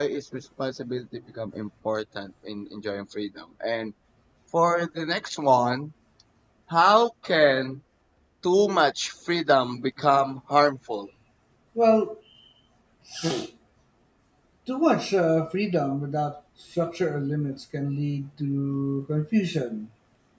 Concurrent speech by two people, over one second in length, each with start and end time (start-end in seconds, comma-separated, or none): none